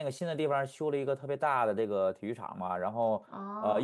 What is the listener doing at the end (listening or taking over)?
listening